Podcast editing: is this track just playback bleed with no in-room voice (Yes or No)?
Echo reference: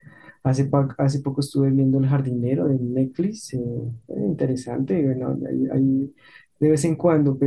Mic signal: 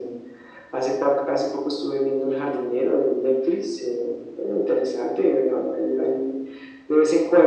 Yes